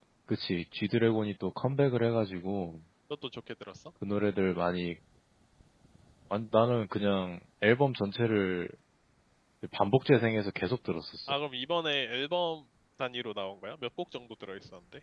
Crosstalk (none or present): none